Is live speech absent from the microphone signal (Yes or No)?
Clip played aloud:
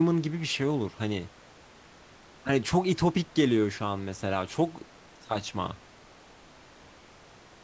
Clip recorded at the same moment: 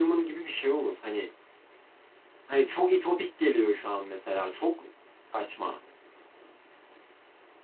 Yes